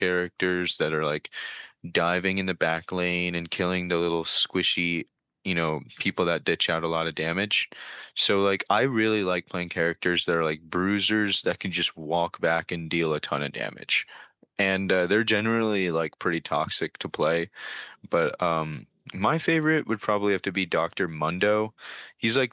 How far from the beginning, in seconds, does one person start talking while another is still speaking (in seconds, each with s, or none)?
none